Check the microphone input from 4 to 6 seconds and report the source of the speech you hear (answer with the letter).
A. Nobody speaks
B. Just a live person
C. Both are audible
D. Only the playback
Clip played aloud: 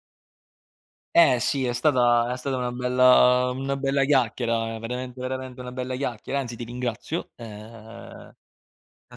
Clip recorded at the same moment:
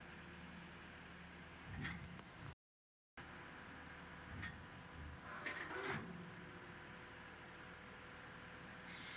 A